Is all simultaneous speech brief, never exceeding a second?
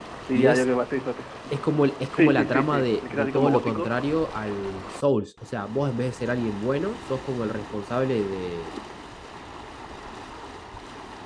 No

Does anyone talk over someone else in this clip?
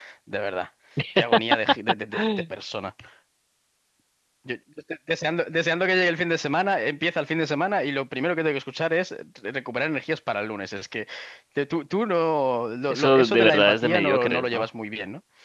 Yes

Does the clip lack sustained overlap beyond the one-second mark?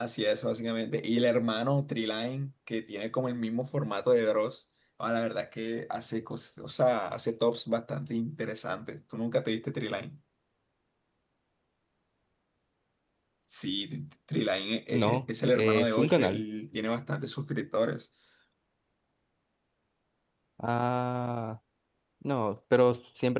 No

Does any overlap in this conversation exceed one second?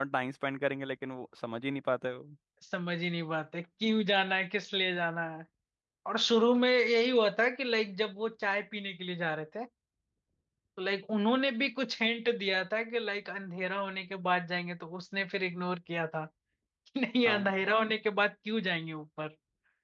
No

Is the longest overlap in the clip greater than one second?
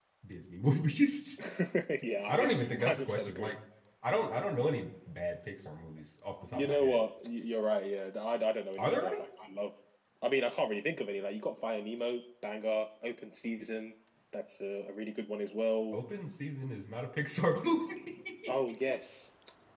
Yes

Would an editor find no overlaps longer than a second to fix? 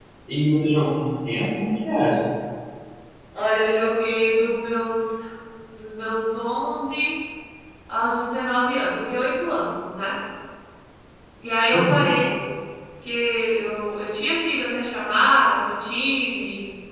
Yes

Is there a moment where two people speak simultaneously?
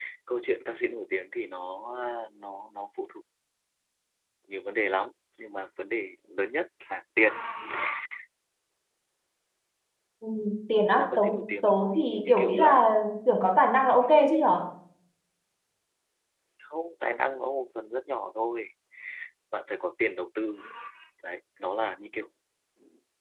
Yes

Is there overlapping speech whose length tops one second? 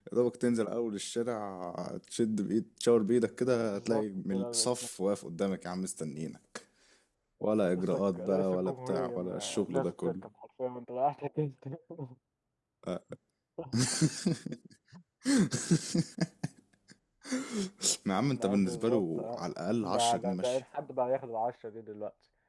Yes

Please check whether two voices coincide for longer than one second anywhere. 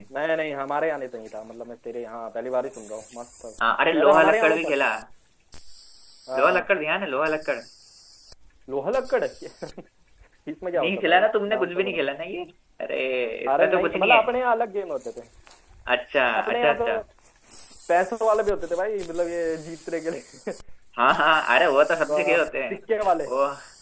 Yes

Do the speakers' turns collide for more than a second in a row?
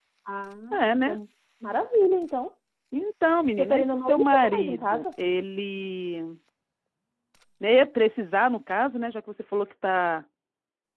Yes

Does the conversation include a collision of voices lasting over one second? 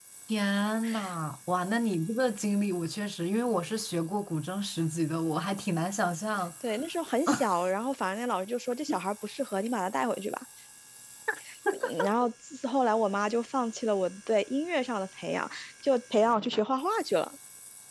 No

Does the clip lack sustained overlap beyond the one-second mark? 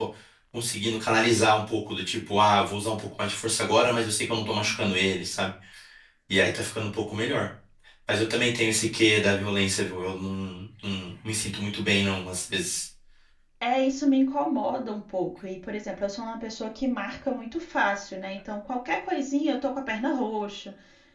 Yes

